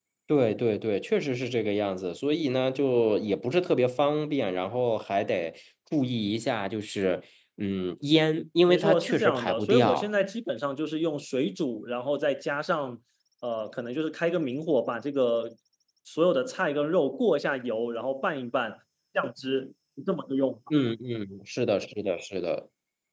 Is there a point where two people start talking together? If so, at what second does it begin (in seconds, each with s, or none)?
8.7 s